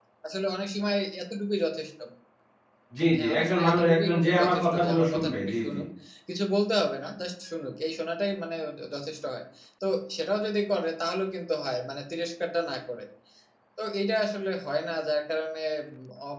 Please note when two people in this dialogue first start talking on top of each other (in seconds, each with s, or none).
3.2 s